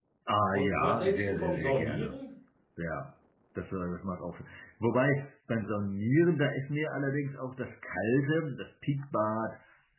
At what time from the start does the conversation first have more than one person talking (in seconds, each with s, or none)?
0.5 s